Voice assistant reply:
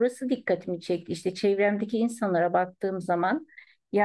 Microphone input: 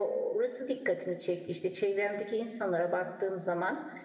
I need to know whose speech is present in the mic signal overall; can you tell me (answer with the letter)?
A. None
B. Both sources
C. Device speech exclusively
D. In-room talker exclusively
C